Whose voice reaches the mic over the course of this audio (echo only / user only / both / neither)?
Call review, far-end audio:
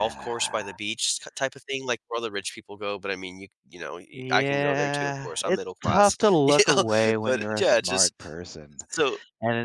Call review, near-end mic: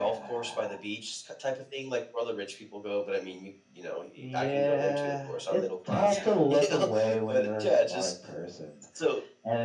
both